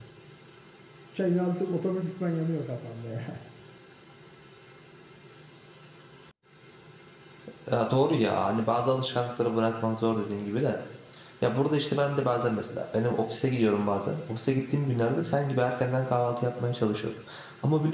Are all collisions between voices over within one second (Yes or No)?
Yes